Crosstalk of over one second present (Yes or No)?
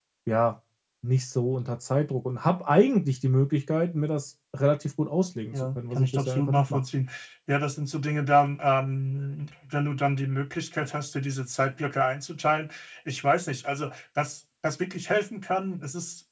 Yes